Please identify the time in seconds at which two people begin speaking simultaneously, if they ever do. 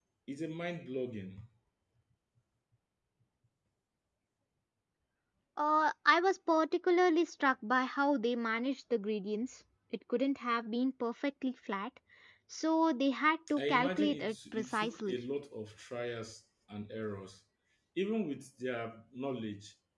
13.5 s

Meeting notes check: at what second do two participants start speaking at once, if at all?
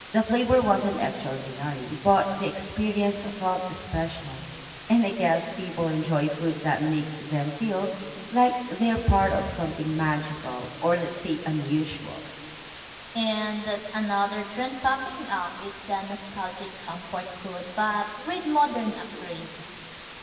none

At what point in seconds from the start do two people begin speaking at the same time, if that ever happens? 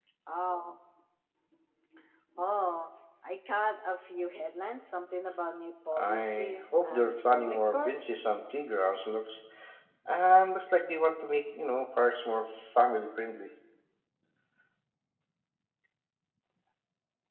6.0 s

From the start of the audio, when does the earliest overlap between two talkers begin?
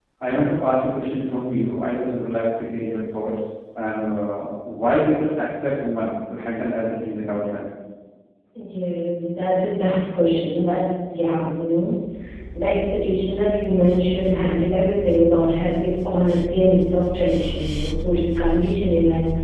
none

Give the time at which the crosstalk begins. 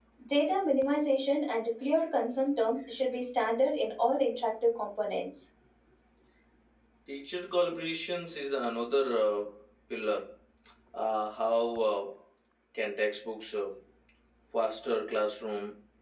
none

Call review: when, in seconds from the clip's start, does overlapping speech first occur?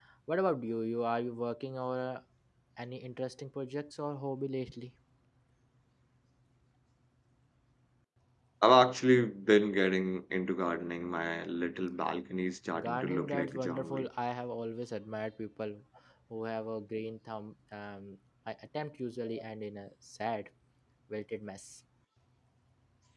12.7 s

